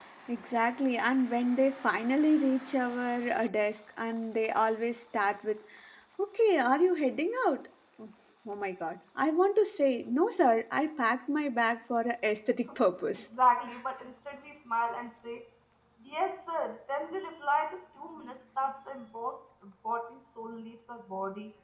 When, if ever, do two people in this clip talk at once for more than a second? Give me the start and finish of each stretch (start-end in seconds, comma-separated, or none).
none